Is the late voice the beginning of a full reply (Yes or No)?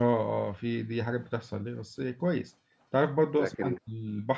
No